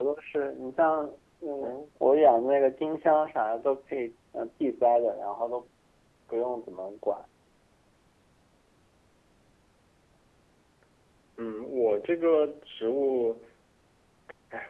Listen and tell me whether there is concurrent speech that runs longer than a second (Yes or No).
No